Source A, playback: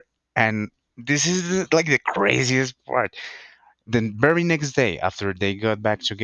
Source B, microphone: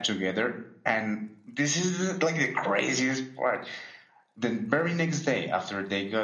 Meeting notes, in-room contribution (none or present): none